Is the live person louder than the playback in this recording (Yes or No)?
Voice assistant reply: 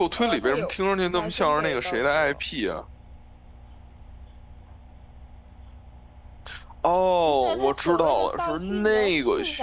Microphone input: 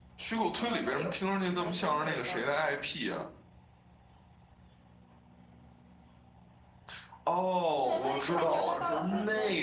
No